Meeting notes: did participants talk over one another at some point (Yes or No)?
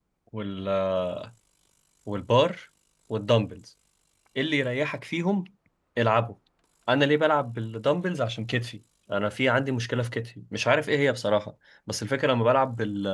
No